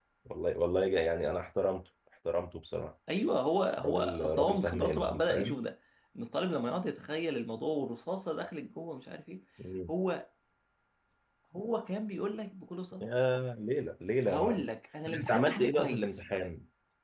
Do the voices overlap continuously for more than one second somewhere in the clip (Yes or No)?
Yes